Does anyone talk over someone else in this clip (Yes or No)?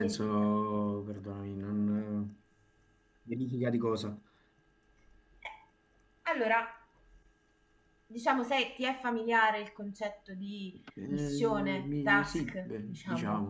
Yes